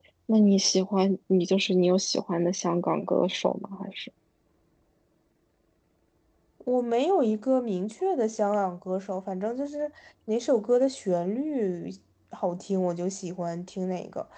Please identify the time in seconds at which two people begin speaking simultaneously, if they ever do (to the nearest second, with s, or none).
none